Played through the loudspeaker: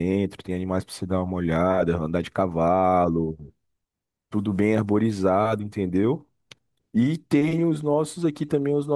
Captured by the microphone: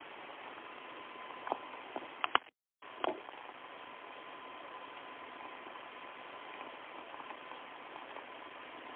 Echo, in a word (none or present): none